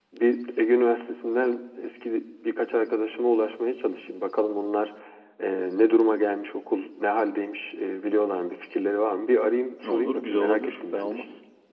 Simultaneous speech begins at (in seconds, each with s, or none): 9.8 s